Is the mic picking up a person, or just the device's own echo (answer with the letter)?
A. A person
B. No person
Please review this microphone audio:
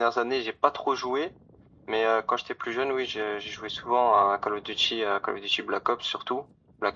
B